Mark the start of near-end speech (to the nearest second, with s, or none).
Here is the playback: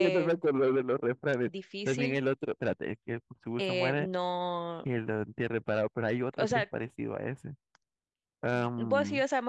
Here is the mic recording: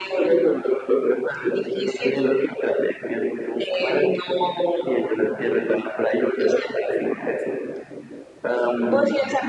none